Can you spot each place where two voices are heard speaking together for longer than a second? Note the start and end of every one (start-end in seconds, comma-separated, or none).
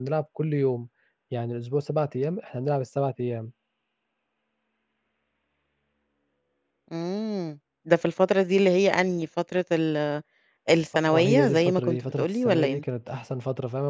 11.1-12.8